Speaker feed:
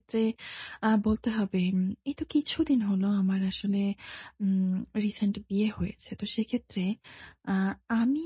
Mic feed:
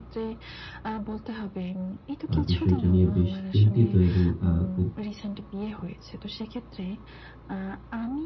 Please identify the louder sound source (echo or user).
user